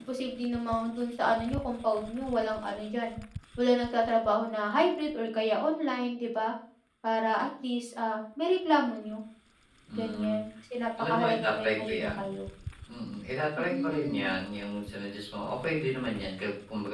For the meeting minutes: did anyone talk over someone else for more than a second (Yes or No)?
Yes